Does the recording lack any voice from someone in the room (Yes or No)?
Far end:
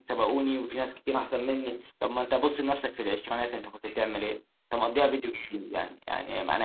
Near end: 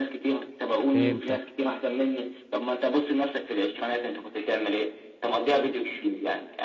No